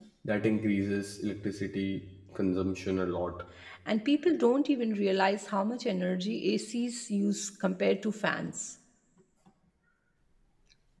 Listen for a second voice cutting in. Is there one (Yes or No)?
No